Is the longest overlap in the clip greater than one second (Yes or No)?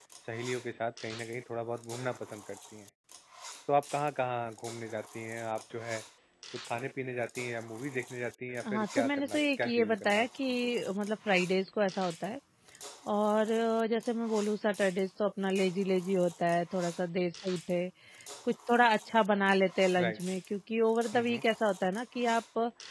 Yes